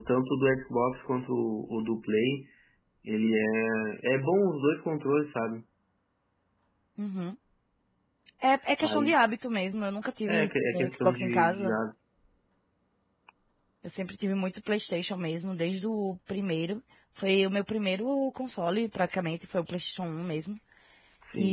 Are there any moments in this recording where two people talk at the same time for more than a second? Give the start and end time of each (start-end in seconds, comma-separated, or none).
10.3-11.8